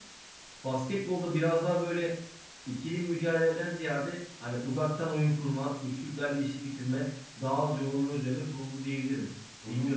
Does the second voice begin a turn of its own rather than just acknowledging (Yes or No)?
Yes